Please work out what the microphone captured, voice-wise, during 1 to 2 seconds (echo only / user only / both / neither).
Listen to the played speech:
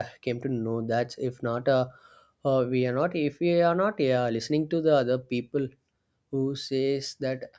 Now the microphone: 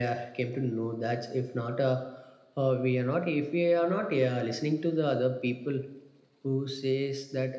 echo only